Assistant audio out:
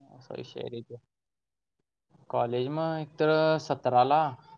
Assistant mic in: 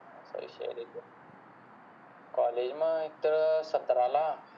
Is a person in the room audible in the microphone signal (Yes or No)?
No